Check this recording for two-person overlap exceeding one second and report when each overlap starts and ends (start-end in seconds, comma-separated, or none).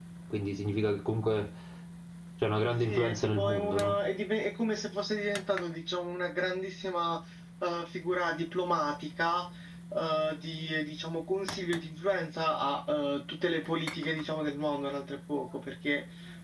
2.7-4.0